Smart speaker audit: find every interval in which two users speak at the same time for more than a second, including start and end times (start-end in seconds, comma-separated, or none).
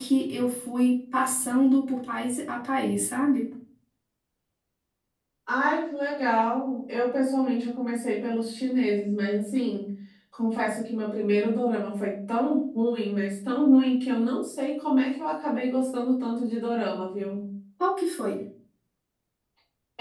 none